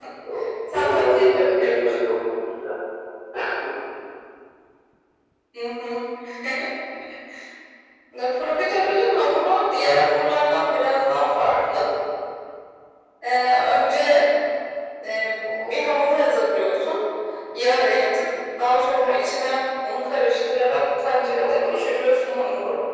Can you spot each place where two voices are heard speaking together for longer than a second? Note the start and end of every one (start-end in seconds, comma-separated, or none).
0.7-1.9